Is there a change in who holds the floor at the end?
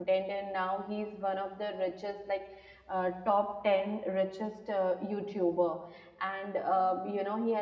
No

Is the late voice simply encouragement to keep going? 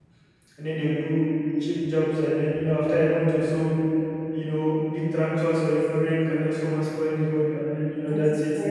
No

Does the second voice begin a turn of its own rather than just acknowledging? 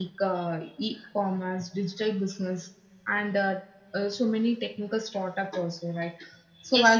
Yes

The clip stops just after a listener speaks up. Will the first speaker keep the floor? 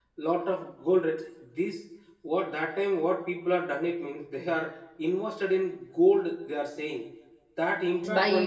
Yes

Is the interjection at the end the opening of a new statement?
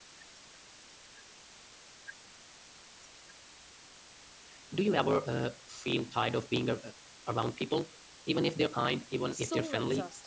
Yes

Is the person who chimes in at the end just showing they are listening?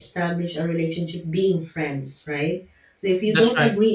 Yes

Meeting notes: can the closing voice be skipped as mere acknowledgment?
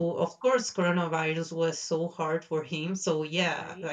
Yes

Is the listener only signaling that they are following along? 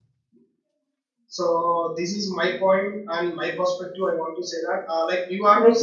No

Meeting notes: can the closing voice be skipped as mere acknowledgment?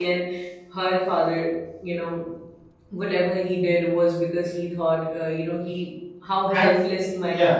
No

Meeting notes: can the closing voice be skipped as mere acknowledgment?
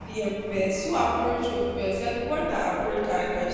No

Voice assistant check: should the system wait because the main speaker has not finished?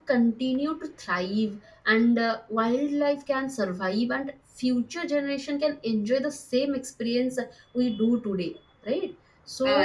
Yes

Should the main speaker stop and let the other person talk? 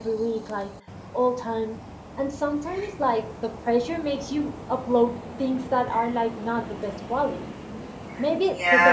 No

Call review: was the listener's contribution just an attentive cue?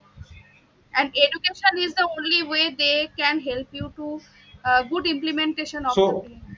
No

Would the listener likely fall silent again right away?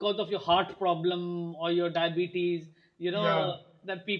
Yes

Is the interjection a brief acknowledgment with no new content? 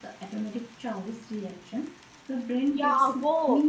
No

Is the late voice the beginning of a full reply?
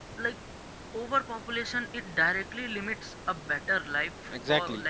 Yes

